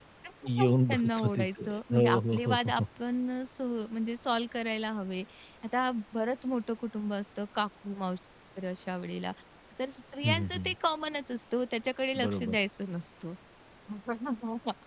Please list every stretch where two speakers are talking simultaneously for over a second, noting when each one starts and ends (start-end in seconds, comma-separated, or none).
0.6-2.6